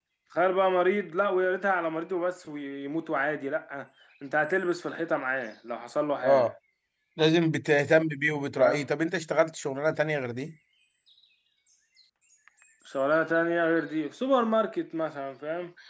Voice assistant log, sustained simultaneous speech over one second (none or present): none